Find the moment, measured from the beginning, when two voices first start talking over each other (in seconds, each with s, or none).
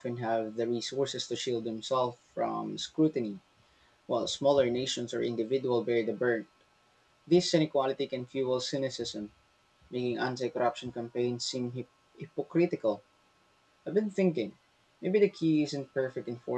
none